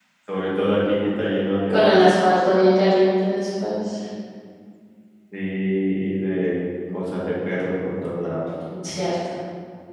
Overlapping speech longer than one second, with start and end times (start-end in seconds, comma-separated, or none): none